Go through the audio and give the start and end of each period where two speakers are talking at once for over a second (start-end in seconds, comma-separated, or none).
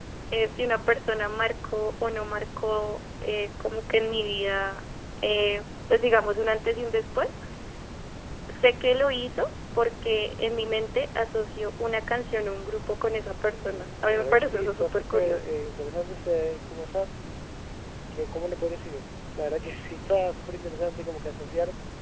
13.5-15.4